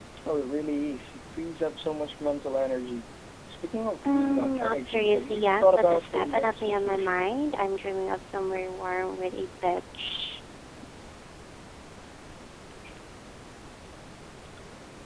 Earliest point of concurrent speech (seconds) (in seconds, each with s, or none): 4.0 s